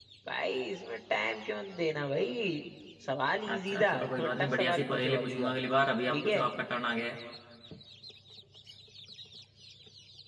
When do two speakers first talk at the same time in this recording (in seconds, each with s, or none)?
3.5 s